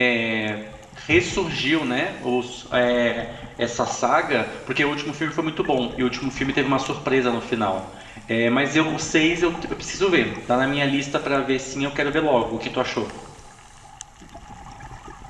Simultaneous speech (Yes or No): No